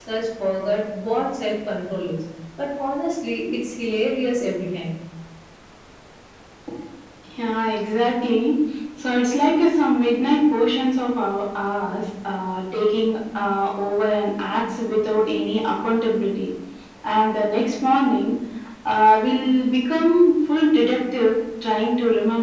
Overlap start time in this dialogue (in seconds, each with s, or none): none